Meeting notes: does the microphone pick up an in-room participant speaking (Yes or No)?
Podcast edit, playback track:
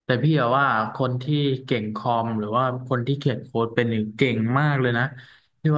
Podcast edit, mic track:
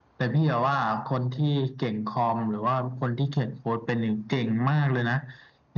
No